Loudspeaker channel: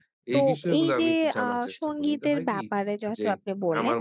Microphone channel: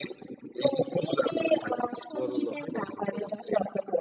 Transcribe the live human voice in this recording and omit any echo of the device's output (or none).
বড় লক্ষ্য অর্জন করা যায়।